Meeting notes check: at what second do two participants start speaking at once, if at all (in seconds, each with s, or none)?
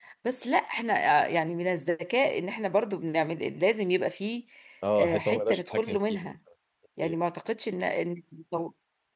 5.0 s